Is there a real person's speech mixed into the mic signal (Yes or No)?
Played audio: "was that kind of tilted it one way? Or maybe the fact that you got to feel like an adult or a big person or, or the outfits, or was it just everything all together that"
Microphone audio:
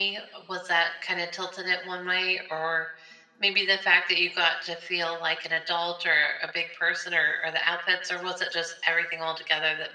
No